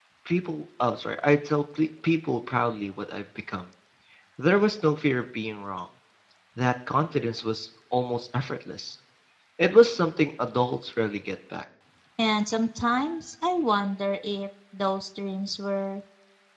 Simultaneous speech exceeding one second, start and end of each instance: none

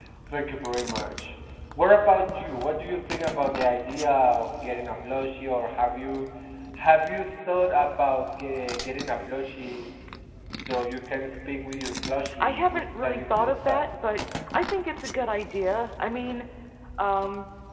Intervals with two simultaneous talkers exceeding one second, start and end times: 12.4-13.9

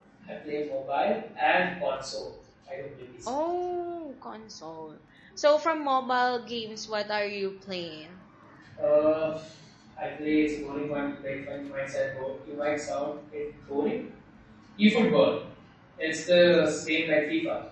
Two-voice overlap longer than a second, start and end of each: none

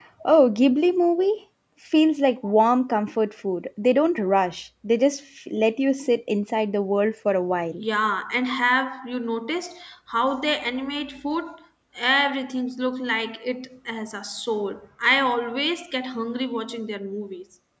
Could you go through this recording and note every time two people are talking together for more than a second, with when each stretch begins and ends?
none

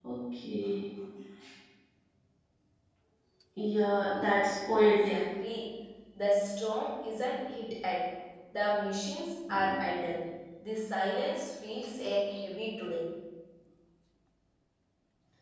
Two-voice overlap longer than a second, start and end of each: none

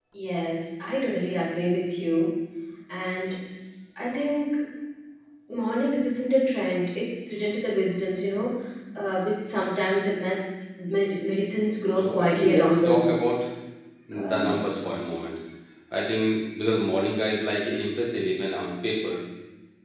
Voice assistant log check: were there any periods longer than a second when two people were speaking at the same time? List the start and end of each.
12.0-13.2

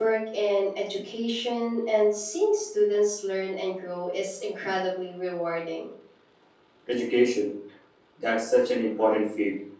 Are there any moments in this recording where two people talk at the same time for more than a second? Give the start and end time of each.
none

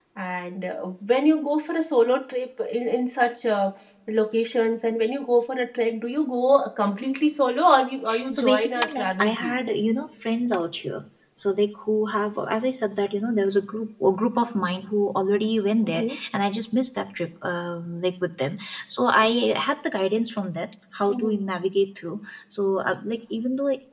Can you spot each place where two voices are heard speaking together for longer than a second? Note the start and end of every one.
8.3-9.6

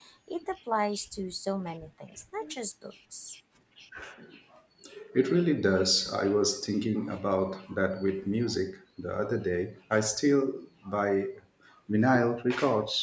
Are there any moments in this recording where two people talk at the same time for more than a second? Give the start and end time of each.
none

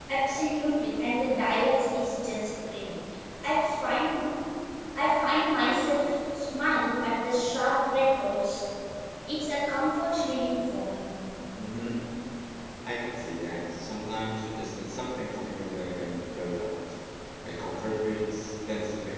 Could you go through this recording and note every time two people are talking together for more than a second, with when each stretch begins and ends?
none

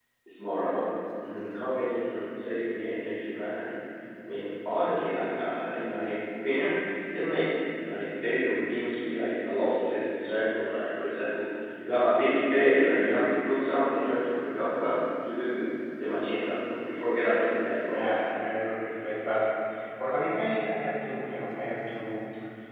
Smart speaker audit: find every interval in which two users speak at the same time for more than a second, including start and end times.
none

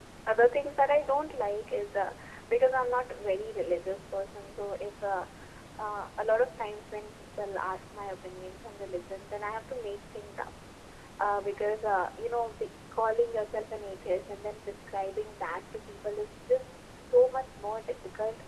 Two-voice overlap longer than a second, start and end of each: none

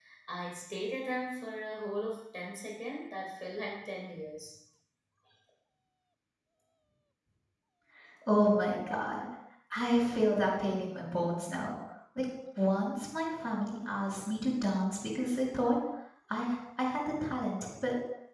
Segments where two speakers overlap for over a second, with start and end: none

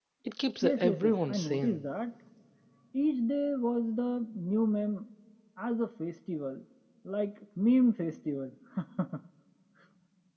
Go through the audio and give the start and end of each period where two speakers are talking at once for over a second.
0.6-1.9

